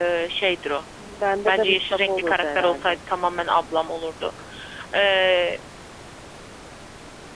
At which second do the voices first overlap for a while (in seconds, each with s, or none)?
1.4 s